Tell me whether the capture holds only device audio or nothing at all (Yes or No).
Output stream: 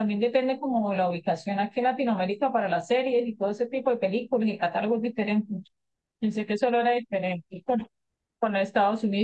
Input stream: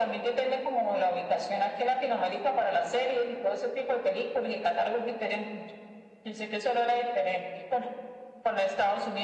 Yes